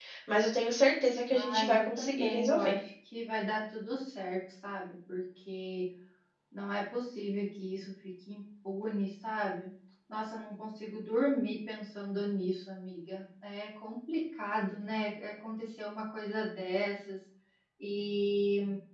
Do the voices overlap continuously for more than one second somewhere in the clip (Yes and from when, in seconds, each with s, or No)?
Yes, from 1.3 s